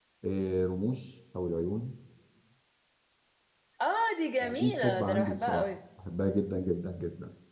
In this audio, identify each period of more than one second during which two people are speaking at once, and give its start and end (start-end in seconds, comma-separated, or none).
4.4-5.7